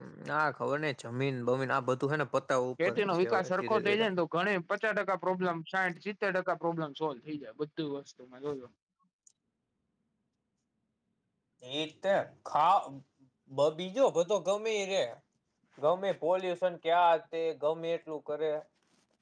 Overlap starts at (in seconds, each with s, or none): 2.8 s